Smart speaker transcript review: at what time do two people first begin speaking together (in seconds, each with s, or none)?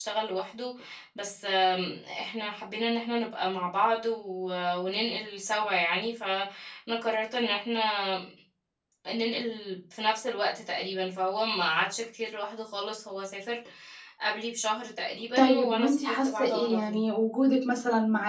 15.4 s